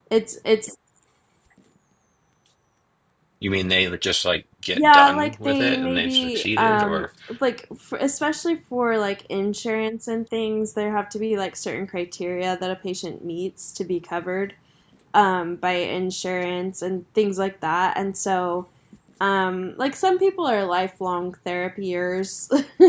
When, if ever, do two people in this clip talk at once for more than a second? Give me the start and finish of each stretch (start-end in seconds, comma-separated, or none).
4.8-7.1